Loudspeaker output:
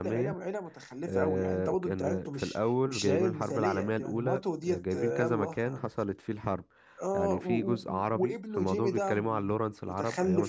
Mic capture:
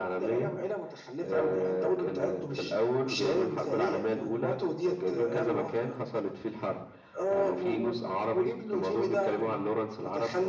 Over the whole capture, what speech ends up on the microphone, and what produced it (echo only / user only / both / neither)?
echo only